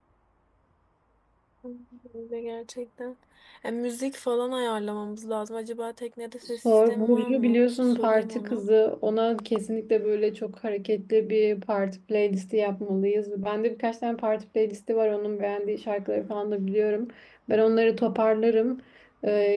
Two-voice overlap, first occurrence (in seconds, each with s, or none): 6.6 s